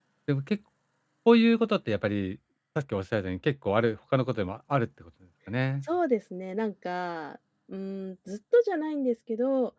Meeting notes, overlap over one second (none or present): none